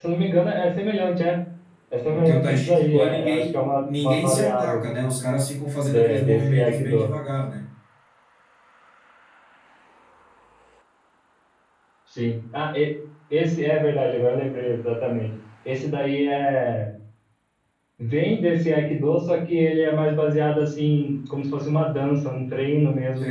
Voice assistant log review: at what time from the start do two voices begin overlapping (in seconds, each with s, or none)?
2.1 s